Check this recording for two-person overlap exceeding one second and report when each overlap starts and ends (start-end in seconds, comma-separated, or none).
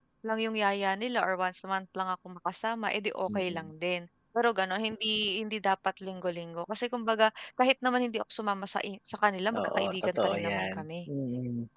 9.5-10.8